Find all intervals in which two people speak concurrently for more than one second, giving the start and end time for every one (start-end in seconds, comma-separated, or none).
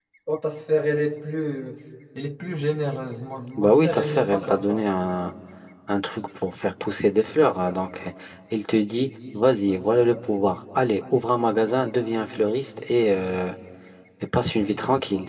3.6-4.8